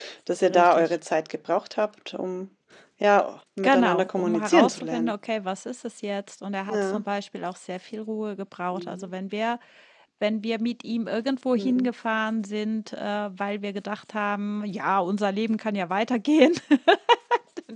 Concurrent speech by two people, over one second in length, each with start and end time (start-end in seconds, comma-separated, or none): 3.6-5.1